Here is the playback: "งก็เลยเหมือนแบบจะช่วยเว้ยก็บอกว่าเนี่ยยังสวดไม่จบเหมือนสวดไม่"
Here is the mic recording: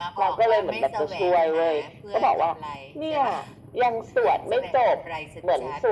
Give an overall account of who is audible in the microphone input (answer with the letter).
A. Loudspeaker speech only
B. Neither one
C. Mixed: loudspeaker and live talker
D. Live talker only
C